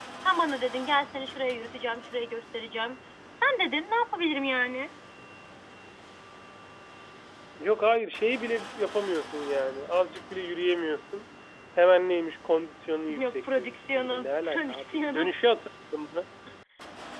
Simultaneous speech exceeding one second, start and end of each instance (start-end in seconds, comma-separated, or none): 13.2-15.3